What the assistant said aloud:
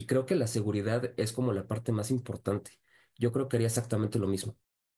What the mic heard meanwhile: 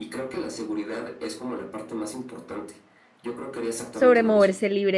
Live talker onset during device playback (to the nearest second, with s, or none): 4 s